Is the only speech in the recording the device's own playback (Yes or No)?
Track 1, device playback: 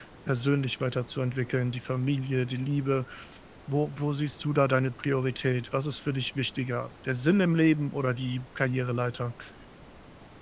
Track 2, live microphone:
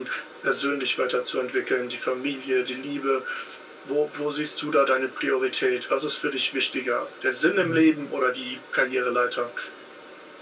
No